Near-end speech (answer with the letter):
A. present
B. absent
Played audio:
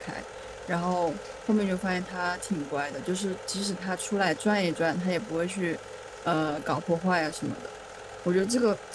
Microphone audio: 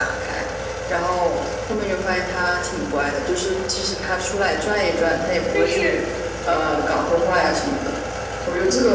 A